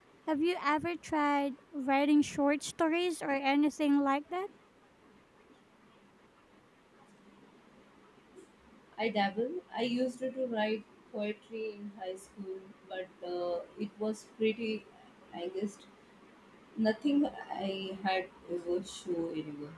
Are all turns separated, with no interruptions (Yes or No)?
Yes